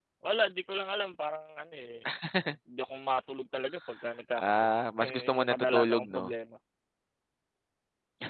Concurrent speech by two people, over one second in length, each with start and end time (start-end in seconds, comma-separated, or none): 5.0-6.2